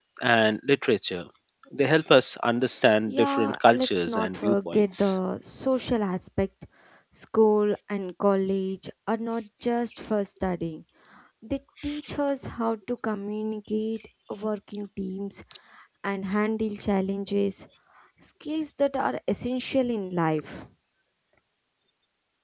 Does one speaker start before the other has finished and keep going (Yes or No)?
Yes